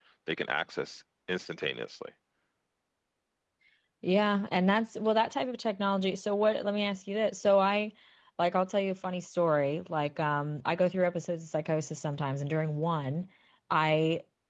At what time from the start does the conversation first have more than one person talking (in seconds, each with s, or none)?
none